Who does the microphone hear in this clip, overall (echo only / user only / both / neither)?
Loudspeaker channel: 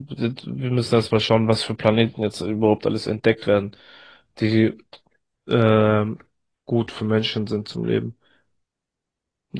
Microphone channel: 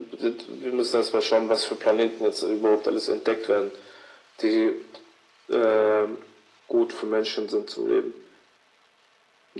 echo only